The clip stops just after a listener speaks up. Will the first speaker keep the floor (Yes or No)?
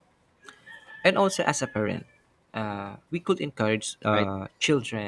Yes